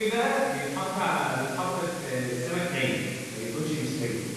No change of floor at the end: Yes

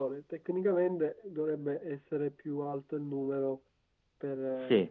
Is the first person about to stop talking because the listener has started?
Yes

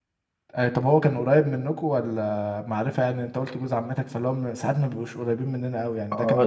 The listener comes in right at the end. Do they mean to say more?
Yes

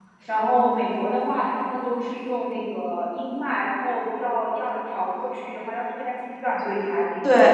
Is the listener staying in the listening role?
No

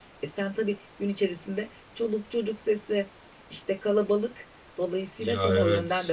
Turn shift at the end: Yes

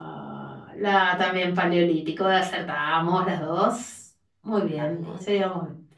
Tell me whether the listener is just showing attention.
Yes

